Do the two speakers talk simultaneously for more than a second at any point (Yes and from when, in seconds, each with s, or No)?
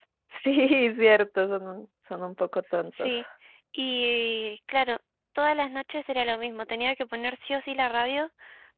No